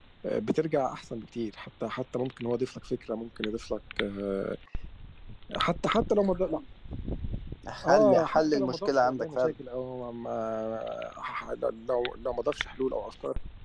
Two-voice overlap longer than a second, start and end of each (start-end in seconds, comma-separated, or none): 7.8-9.5